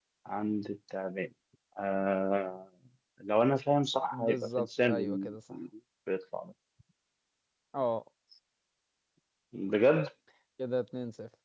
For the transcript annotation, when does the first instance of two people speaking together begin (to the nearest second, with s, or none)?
4 s